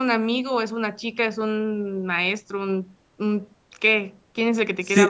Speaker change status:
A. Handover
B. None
A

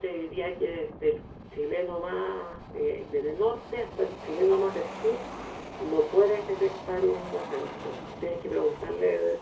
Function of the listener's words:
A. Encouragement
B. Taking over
A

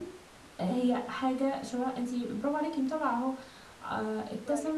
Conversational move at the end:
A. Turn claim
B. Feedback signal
B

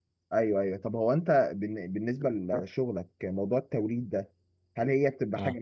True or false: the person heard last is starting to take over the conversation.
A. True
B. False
B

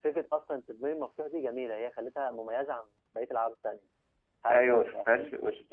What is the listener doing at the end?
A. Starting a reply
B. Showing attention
A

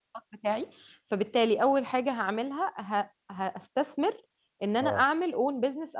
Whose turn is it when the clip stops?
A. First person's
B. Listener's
A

